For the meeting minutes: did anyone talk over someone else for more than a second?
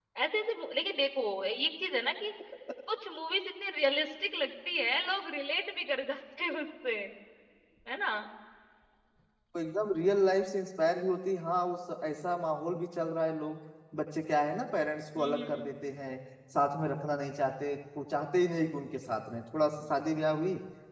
No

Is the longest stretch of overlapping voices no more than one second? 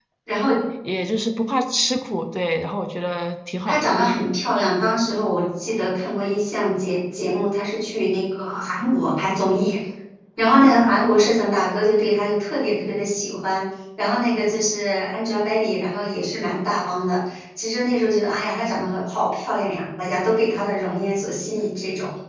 Yes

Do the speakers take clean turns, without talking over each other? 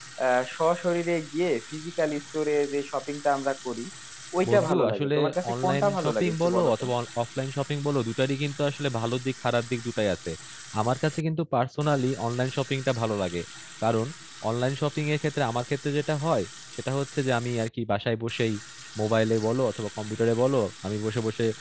No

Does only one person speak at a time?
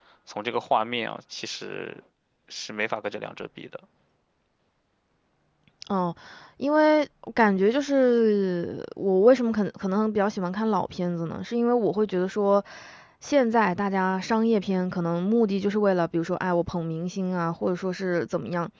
Yes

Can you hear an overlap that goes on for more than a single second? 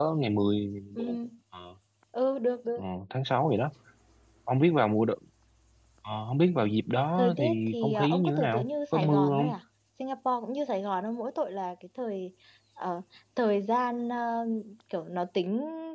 Yes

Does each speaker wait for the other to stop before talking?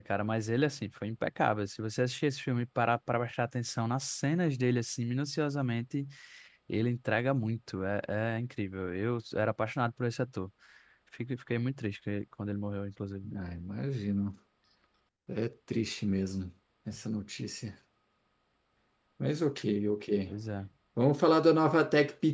Yes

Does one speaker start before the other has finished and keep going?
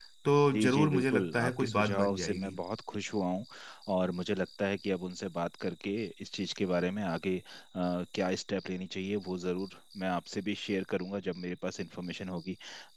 Yes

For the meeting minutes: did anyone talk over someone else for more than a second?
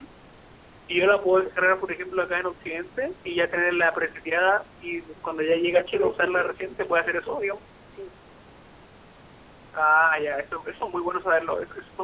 Yes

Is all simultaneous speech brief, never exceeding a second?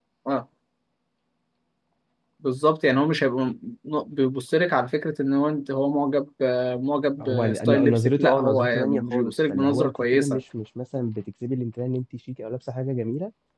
No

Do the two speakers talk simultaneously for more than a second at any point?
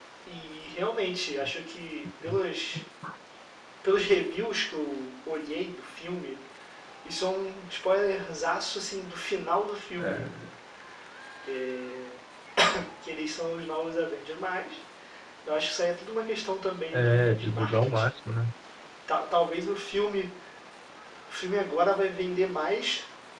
Yes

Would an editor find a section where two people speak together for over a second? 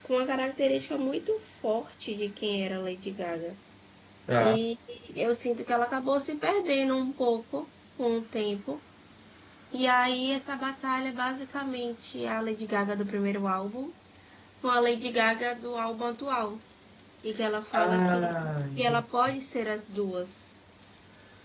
Yes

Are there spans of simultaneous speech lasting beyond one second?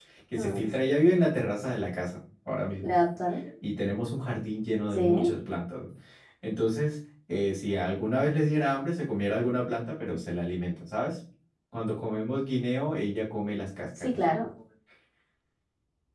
No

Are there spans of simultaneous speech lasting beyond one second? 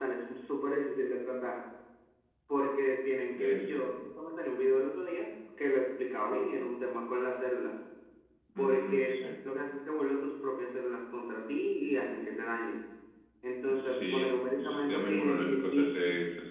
Yes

